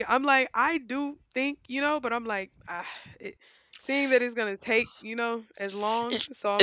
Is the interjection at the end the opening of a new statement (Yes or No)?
Yes